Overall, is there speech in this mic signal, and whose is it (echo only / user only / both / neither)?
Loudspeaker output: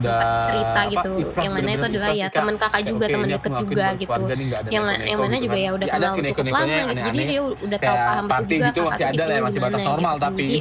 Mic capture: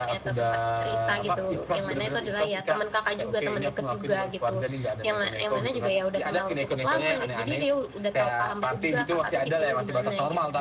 both